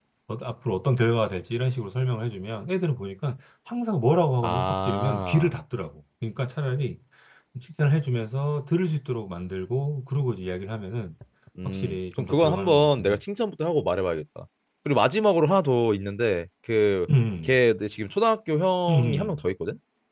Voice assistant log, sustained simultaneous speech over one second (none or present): present